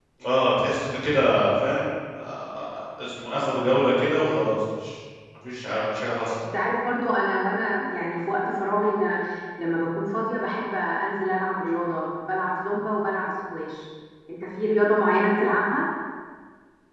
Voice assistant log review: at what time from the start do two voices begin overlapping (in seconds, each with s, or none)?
none